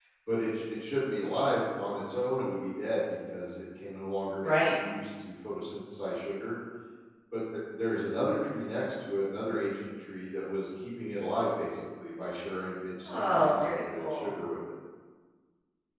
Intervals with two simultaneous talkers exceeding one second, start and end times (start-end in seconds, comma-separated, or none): 13.0-14.3